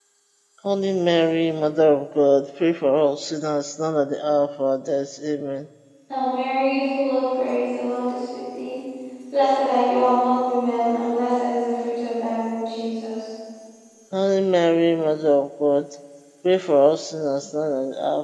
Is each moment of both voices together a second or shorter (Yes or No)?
Yes